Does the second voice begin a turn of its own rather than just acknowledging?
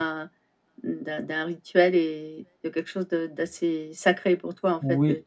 No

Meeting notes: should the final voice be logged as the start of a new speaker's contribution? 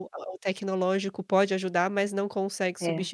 No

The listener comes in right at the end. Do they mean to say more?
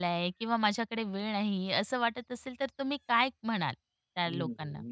Yes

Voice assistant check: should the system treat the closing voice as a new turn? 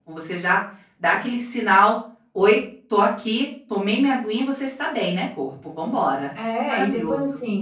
Yes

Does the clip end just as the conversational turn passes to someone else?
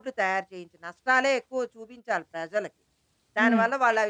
No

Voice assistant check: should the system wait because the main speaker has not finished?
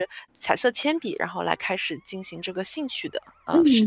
No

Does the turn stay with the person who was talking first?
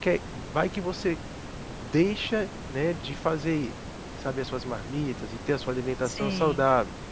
Yes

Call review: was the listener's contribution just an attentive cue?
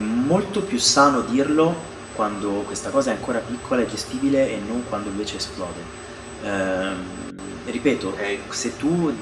Yes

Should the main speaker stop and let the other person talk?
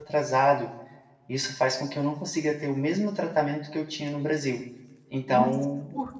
Yes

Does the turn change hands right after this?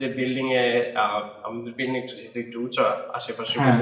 No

